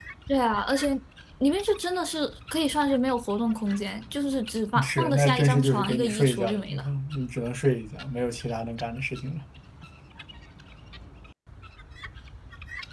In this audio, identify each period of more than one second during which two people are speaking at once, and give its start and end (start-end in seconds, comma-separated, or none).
4.8-6.9